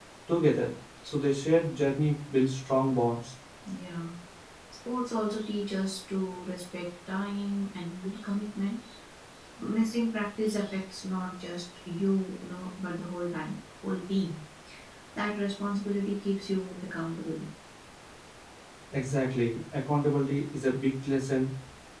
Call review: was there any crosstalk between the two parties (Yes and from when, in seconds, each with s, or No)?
No